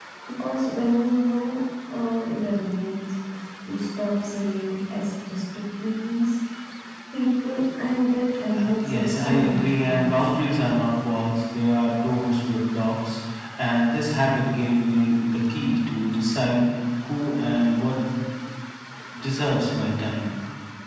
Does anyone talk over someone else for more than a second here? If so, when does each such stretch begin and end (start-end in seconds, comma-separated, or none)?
8.6-10.4